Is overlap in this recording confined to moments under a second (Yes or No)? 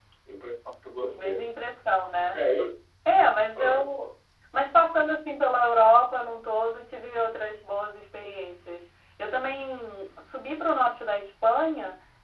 Yes